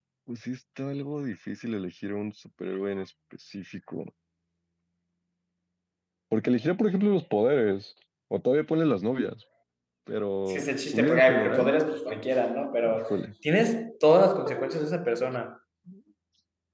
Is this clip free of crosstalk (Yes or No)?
No